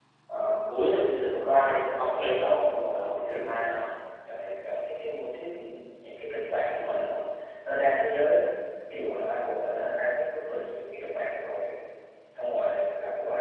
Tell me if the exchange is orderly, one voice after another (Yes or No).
No